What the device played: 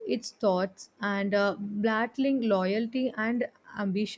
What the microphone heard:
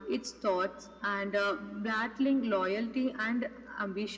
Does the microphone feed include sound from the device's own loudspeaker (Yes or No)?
Yes